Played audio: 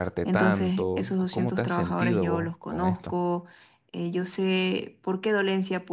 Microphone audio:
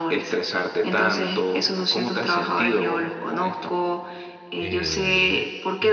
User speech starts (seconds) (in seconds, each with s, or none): 4.5 s